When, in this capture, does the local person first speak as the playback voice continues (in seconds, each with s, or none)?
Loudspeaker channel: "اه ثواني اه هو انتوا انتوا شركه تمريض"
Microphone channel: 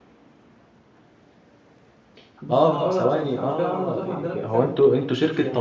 2.4 s